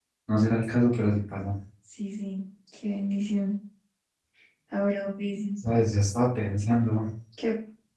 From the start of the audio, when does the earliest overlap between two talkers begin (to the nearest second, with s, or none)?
none